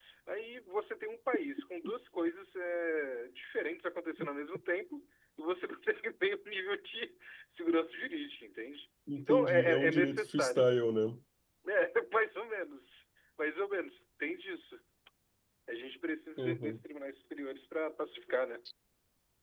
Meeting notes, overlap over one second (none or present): present